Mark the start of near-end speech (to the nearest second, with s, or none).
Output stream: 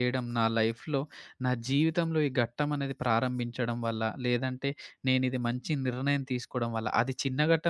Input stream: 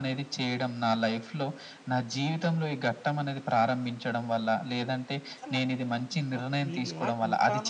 5 s